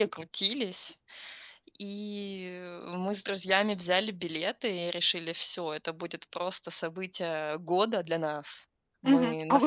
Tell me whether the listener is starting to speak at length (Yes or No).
Yes